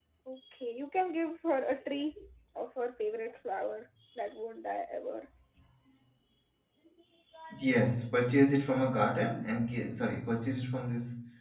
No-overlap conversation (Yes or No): Yes